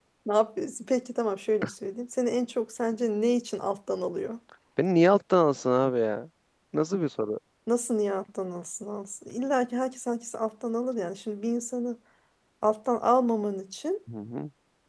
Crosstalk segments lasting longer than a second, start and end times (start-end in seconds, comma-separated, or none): none